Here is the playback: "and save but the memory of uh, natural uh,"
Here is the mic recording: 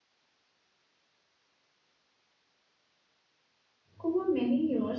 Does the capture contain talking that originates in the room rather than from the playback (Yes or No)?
Yes